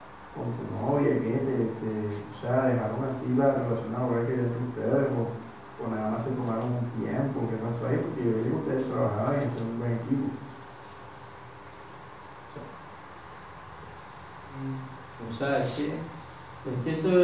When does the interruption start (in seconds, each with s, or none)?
none